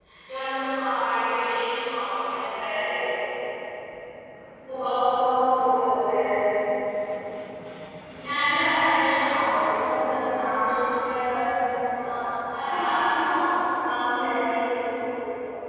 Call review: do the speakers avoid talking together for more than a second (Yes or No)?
Yes